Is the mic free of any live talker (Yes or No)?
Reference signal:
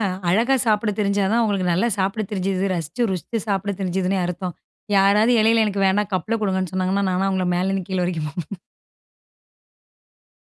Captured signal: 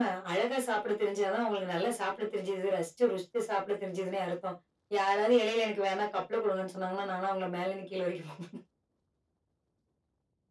Yes